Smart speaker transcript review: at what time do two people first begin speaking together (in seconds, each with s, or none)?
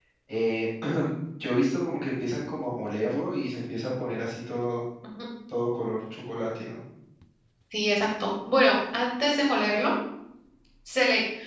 none